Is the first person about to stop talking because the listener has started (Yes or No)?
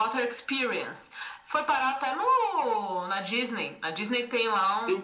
Yes